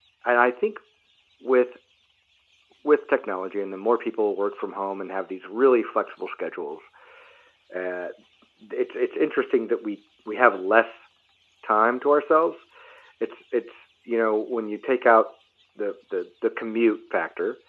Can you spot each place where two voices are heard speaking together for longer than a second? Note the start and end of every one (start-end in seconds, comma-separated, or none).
none